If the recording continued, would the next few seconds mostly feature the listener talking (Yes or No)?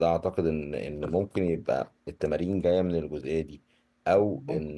No